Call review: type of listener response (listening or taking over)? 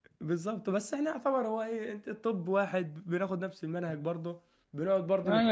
taking over